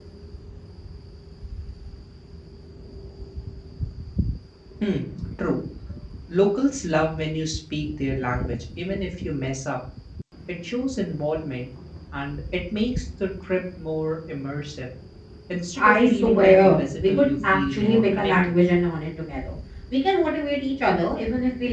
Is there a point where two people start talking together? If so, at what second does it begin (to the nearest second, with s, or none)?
16 s